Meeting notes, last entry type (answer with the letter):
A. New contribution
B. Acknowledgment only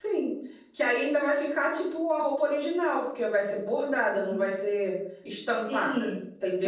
A